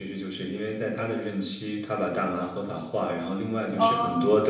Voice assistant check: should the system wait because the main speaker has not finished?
Yes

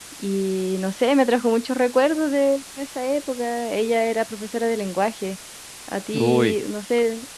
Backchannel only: Yes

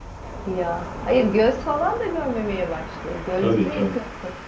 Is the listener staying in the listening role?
Yes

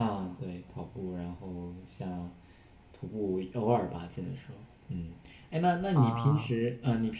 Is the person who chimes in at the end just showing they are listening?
Yes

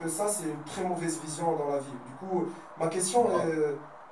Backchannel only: Yes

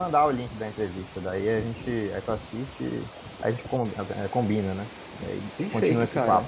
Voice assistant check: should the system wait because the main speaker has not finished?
No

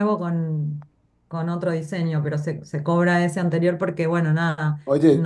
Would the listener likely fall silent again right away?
No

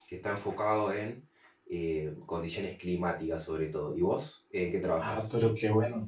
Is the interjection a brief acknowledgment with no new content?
No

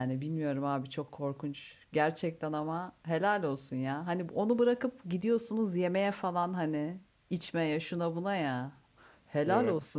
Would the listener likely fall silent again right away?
Yes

